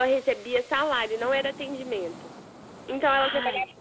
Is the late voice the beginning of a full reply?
No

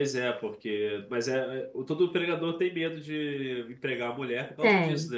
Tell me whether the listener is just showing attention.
Yes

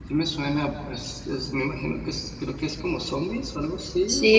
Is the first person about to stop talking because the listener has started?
Yes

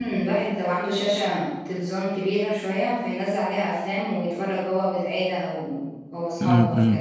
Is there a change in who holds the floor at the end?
Yes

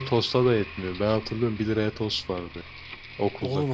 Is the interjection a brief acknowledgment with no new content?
No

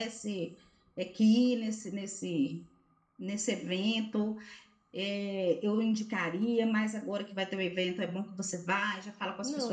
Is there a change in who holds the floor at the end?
No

